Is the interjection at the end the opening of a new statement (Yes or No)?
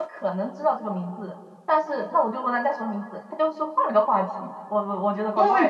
Yes